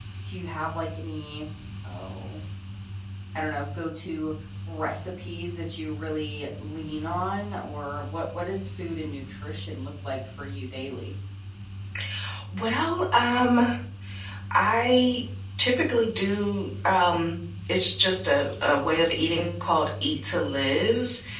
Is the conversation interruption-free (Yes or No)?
Yes